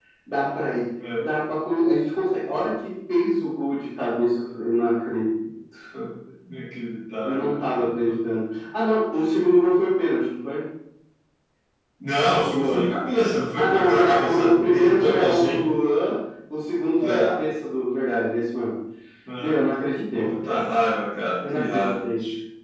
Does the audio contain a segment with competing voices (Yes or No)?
Yes